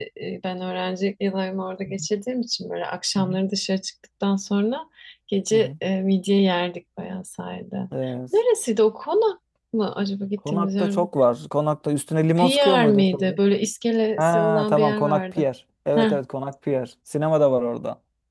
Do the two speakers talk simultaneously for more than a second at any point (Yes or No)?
Yes